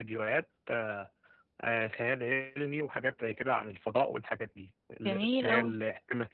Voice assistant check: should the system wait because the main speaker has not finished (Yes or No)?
Yes